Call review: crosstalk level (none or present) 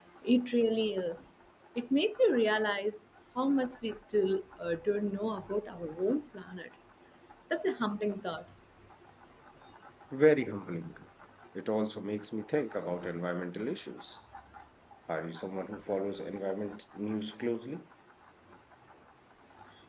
none